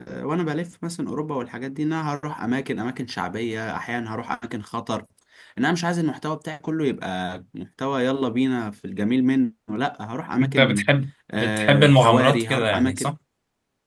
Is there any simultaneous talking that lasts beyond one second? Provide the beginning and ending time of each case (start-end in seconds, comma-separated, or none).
11.4-13.1